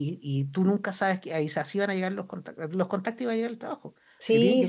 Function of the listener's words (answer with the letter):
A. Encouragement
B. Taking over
B